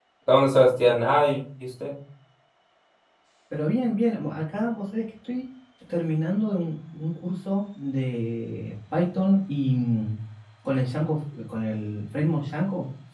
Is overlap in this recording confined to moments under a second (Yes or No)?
Yes